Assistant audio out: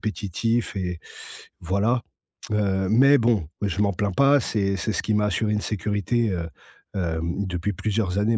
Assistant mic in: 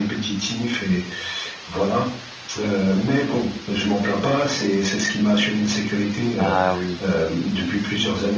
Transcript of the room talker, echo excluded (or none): Ah oui.